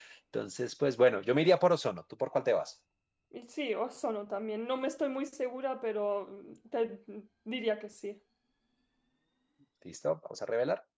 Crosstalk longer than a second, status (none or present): none